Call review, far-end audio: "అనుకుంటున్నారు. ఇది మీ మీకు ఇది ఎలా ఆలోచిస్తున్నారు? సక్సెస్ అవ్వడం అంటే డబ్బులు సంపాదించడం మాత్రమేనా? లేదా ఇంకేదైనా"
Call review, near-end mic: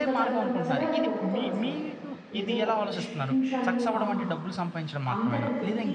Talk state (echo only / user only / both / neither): both